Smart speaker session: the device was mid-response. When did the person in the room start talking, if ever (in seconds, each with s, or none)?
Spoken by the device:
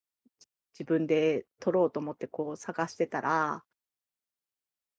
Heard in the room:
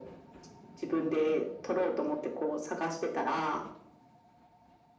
none